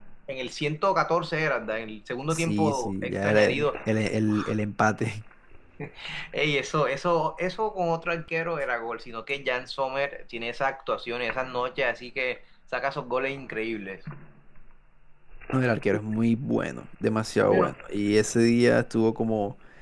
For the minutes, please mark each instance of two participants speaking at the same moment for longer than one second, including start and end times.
2.3-3.6

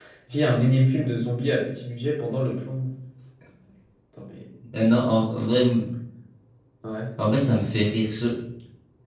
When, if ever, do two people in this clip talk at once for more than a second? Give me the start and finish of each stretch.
none

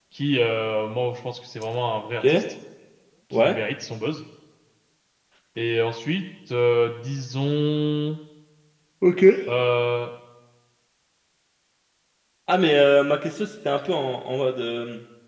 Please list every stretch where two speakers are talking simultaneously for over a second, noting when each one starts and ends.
none

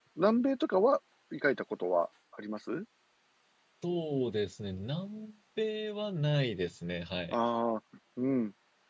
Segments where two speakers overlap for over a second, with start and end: none

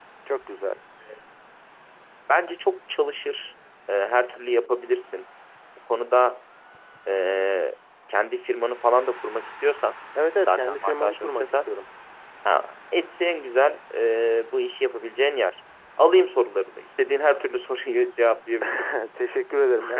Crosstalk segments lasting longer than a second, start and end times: 10.4-11.7

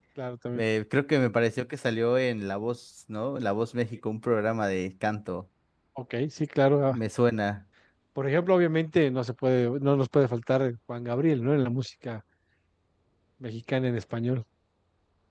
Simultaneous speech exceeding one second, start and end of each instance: none

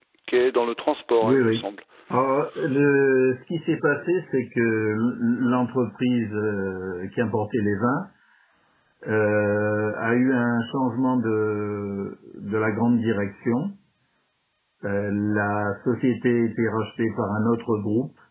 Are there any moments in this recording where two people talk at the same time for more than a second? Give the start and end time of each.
none

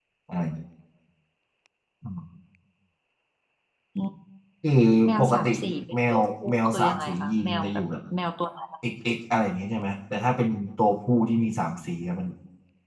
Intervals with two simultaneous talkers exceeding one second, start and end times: 6.1-7.8

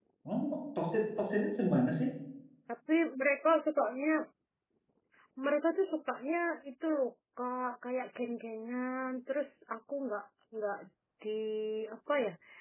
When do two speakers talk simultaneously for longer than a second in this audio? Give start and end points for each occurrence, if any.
none

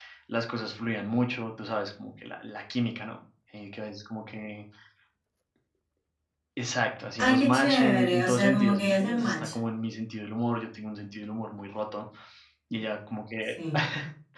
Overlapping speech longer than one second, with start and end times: 7.2-9.3

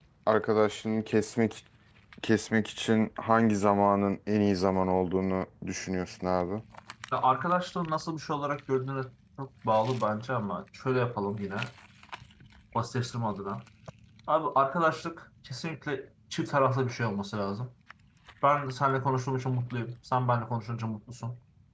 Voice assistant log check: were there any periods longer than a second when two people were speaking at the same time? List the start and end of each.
none

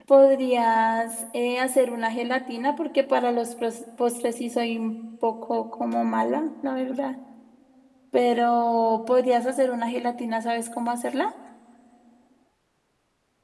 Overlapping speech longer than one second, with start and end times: none

